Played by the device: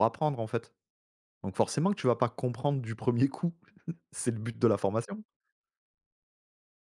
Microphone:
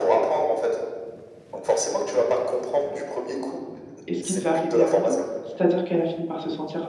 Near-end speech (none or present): present